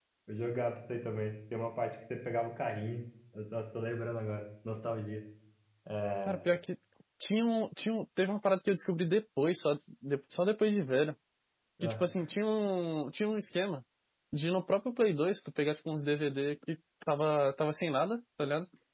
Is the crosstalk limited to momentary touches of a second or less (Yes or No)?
Yes